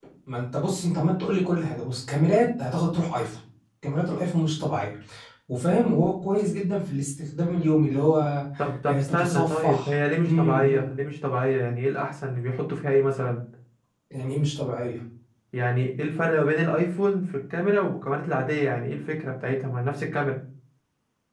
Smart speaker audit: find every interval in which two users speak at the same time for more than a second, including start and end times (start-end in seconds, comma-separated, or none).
8.9-10.9